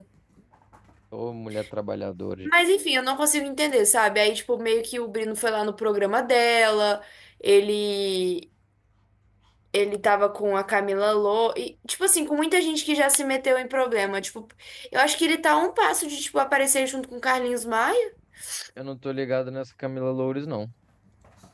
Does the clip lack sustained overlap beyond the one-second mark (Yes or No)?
Yes